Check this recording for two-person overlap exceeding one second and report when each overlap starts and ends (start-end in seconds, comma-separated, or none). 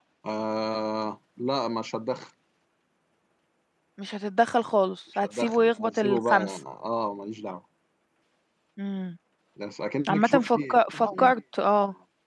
5.2-6.6, 10.1-11.3